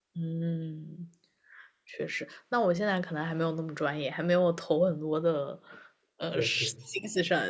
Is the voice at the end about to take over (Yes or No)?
No